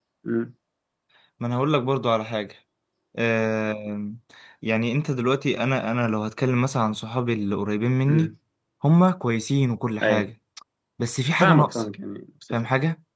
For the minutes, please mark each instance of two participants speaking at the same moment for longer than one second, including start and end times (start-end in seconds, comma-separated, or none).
none